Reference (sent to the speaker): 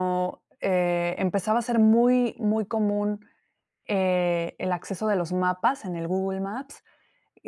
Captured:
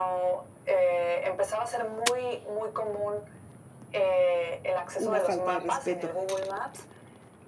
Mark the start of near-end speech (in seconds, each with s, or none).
5.0 s